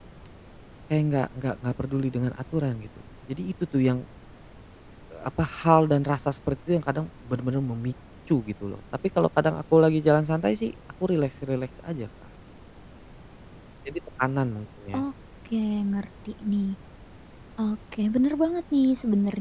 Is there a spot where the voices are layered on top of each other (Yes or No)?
No